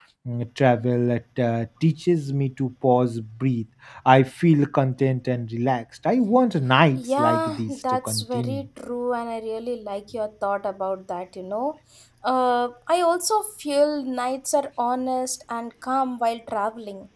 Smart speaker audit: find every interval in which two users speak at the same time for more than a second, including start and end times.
7.0-8.7

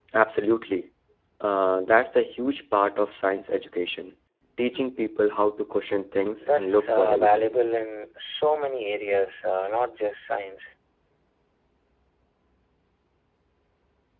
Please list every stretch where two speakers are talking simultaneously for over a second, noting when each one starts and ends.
6.4-7.6

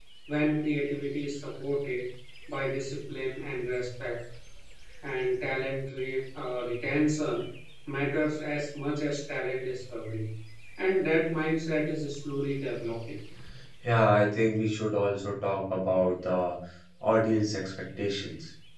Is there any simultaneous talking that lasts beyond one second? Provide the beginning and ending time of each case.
none

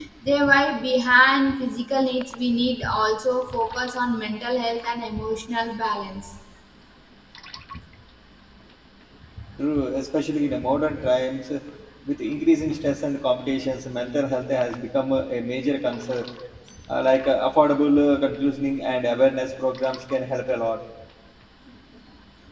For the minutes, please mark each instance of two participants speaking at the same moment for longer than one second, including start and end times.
none

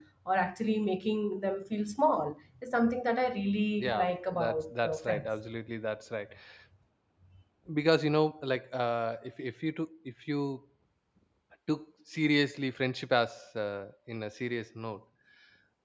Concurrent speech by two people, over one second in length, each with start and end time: 3.8-5.3

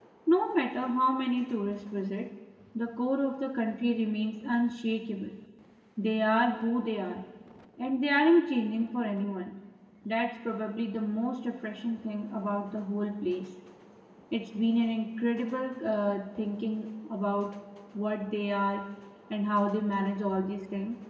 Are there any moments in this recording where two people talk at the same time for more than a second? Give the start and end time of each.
none

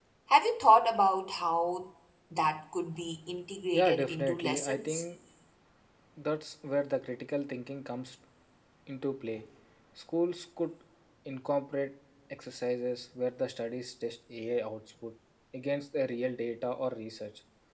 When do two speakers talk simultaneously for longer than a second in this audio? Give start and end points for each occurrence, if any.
3.7-5.0

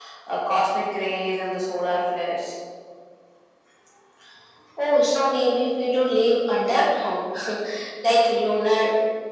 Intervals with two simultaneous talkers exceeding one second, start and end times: none

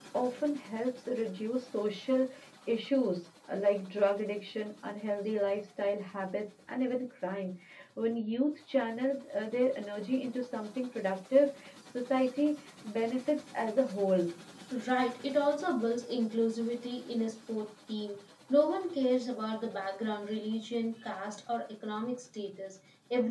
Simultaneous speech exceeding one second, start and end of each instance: none

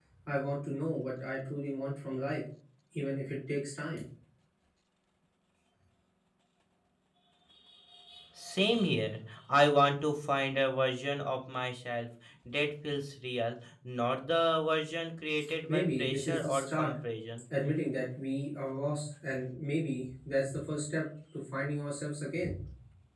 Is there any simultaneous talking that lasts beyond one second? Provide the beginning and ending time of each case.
15.7-17.0

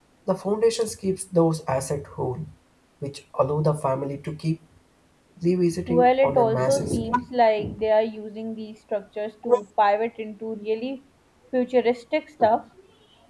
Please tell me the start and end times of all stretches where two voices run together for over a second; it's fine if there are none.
5.9-7.2

